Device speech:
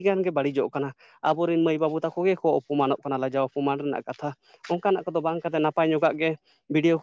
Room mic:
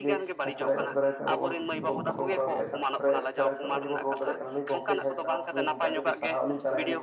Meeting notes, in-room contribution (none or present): present